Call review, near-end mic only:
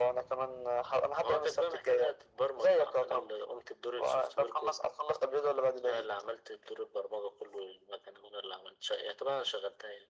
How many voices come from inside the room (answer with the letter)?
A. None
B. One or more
A